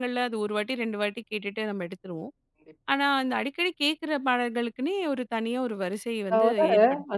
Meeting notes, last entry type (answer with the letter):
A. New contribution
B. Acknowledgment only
A